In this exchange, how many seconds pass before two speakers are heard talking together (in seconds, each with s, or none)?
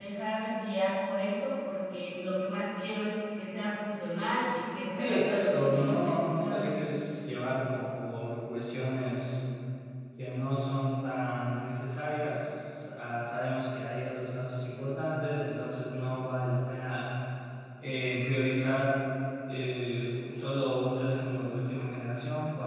5.0 s